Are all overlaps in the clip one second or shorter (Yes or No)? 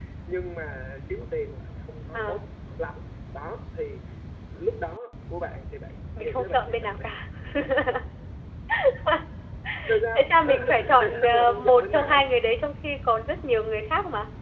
No